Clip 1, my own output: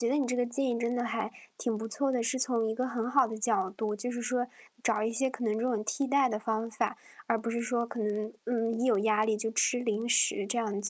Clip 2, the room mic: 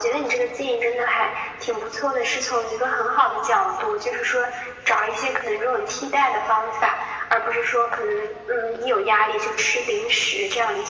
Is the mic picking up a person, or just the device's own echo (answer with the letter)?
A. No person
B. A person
A